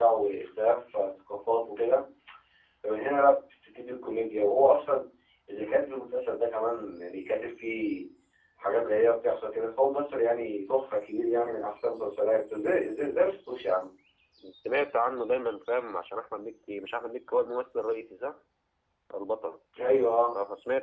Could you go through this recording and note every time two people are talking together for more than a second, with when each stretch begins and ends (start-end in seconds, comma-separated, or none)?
none